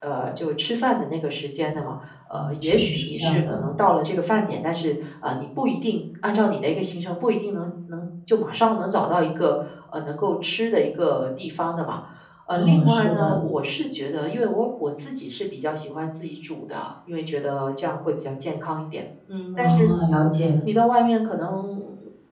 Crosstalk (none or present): present